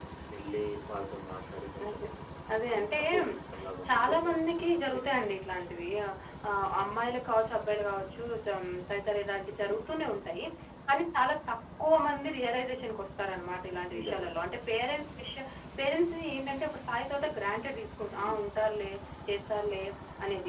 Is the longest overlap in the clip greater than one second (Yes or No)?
Yes